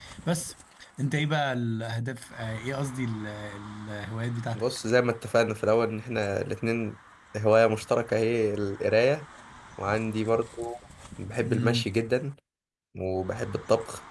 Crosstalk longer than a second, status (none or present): none